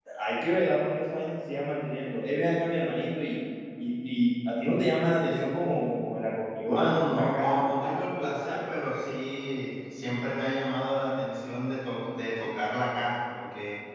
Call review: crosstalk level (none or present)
present